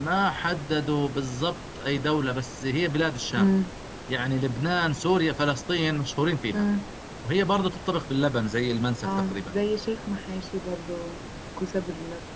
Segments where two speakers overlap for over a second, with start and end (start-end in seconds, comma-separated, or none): none